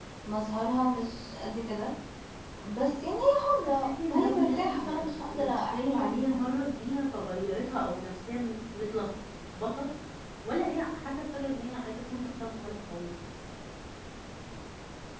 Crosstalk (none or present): present